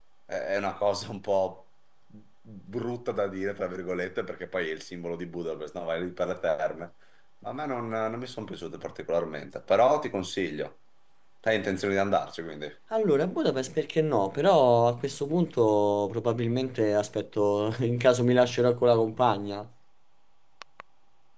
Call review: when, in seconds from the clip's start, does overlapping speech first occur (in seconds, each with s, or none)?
none